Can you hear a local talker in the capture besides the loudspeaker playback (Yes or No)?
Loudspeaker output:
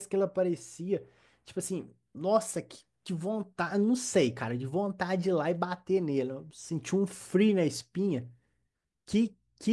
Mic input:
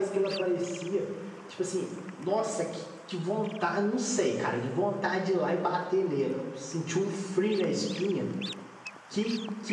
No